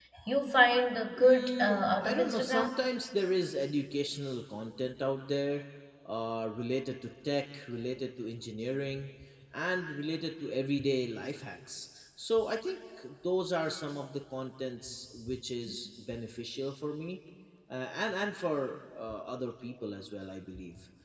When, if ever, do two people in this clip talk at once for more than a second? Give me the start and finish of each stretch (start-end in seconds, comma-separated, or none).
1.2-2.9